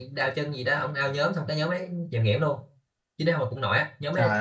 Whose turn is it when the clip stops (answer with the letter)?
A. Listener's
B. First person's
B